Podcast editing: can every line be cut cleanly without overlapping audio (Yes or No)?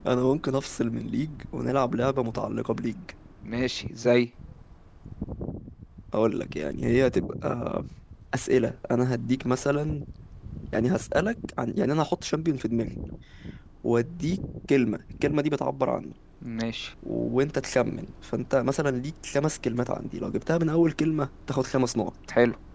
Yes